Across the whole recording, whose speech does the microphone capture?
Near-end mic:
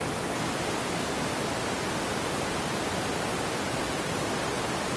neither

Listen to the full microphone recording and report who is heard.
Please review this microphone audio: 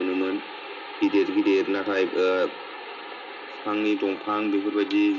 echo only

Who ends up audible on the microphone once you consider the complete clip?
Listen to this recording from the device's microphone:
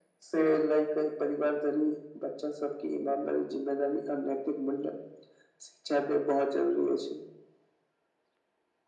echo only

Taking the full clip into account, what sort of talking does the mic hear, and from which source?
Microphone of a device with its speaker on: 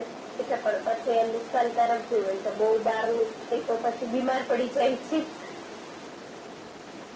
echo only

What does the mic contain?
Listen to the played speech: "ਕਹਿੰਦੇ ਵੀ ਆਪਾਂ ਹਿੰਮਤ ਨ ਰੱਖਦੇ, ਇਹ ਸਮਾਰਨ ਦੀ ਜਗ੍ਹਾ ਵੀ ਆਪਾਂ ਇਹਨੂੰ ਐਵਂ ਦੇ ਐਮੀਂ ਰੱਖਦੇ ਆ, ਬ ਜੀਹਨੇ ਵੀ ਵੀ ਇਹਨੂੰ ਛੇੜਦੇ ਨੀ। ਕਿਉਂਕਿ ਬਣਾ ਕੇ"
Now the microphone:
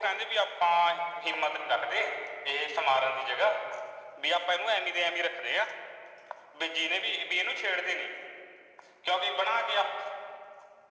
echo only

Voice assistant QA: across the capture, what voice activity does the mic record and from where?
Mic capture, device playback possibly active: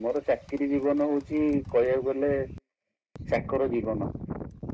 echo only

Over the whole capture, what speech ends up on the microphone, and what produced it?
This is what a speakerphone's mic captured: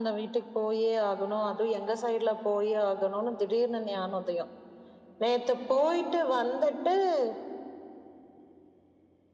echo only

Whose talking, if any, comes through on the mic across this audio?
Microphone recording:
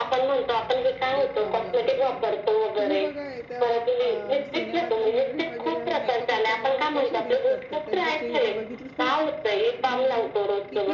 both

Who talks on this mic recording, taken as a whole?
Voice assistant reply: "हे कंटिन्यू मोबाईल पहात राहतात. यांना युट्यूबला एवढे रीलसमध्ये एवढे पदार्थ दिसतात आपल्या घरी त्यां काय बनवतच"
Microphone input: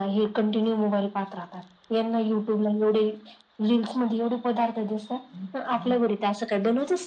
echo only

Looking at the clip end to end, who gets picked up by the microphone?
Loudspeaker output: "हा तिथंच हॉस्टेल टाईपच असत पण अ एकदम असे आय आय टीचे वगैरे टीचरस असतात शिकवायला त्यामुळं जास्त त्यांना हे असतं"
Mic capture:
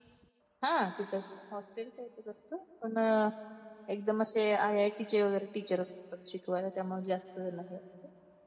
echo only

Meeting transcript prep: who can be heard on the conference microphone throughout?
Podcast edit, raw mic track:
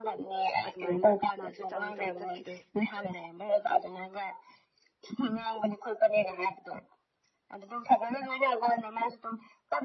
both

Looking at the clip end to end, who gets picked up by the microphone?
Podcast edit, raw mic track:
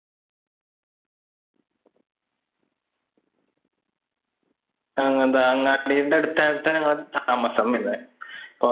user only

